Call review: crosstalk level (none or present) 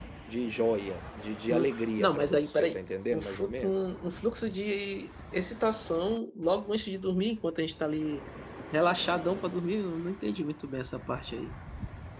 present